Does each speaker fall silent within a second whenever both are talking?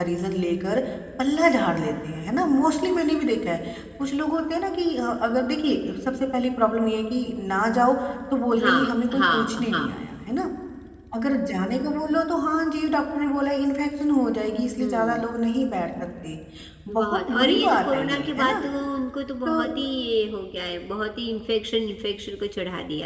No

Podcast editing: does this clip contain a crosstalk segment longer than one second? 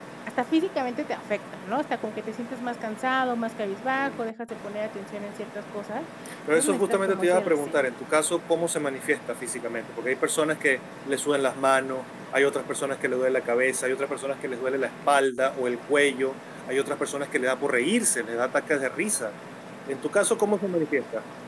Yes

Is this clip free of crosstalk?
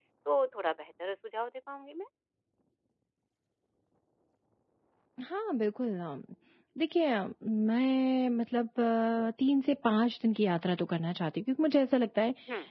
Yes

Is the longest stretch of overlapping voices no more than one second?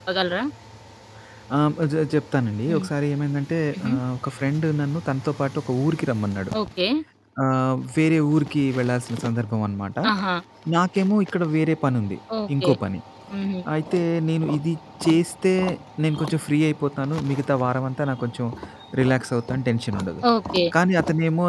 Yes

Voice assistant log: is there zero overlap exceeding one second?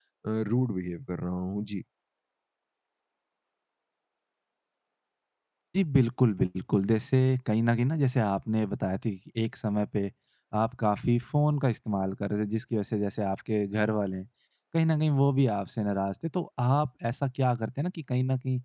Yes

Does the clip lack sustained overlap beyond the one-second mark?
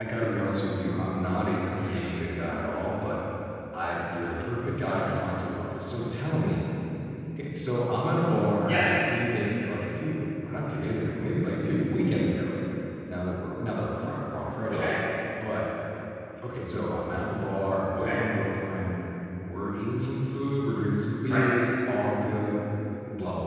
Yes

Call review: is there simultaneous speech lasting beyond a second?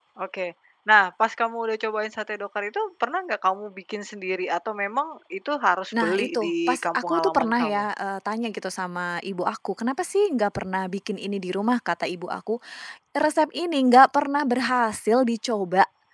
Yes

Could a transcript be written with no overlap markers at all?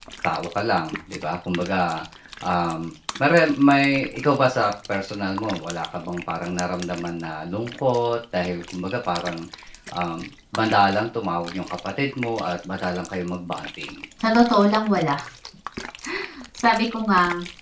Yes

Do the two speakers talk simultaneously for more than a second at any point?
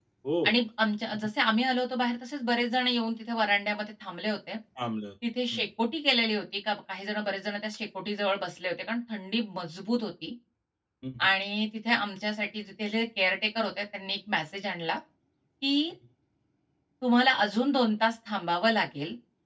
No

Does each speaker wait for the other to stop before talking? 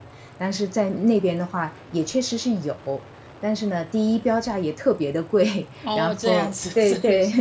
No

